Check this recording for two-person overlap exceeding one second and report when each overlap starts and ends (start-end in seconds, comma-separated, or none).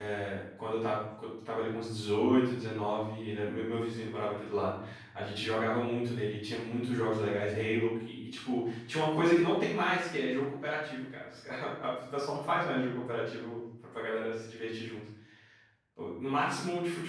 none